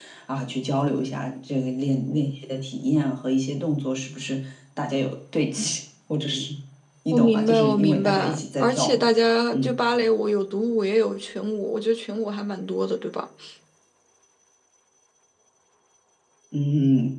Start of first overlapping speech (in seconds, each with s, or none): 7.1 s